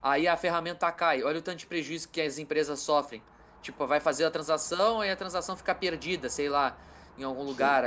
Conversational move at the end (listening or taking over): listening